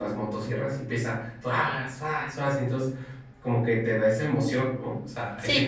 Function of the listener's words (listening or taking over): taking over